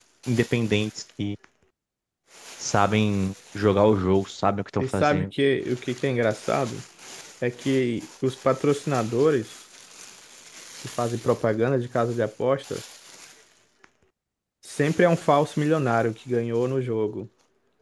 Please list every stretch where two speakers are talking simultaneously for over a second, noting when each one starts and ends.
none

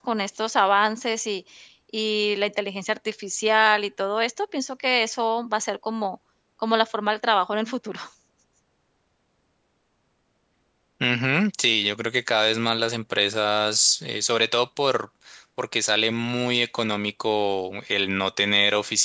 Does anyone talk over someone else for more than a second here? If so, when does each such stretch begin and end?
none

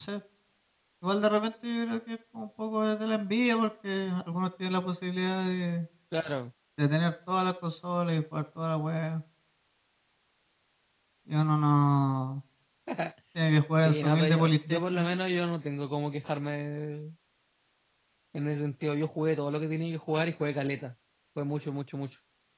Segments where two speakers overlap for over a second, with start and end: 13.8-15.1

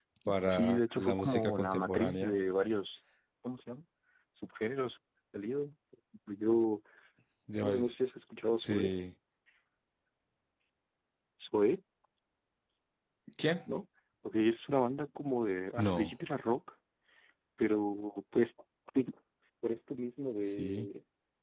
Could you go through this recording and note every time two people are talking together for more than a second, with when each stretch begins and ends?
0.5-2.4

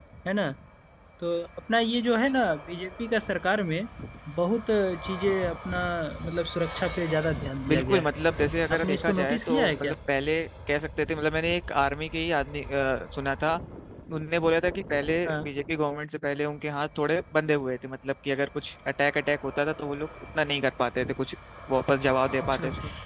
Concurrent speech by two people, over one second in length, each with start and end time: 8.7-9.9

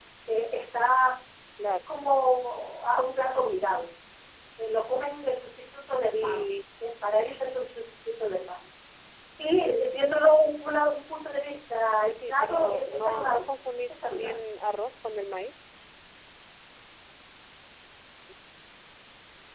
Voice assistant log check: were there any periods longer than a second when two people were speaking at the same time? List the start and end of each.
12.3-13.5

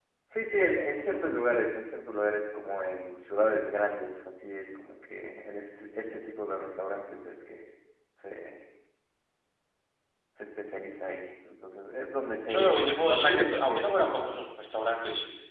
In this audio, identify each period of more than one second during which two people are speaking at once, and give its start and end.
12.5-14.4

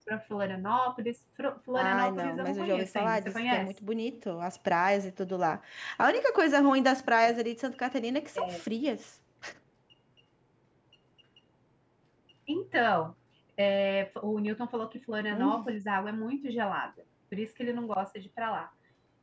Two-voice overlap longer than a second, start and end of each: 1.8-3.7

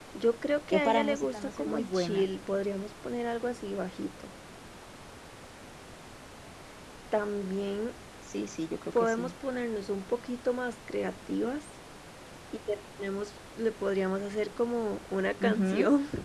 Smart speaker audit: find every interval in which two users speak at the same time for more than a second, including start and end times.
0.7-2.2

